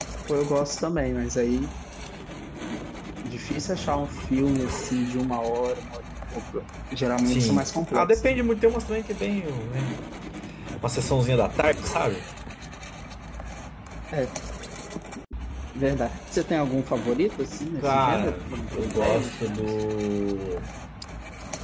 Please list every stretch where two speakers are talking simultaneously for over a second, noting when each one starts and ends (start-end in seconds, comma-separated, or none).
7.2-8.4, 17.8-19.7